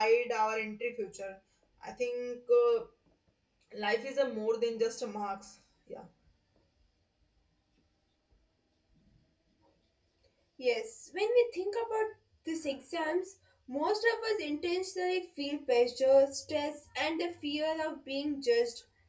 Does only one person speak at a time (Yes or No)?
Yes